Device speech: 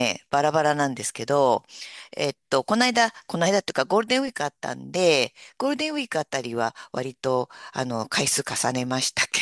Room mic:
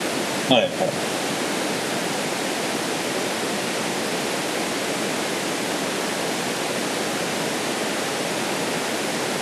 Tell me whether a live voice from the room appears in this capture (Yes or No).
Yes